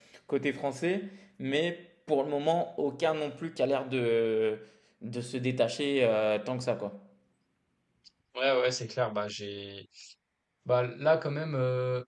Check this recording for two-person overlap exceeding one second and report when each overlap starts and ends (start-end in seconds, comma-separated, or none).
none